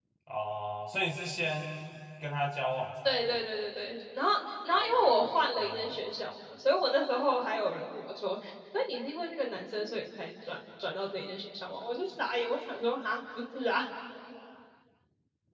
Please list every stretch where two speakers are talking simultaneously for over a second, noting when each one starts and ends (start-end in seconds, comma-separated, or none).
4.7-6.0